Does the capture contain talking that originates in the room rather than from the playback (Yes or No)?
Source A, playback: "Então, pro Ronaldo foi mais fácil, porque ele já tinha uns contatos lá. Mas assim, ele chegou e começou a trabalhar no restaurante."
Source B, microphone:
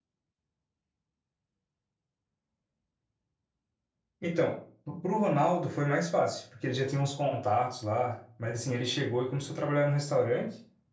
No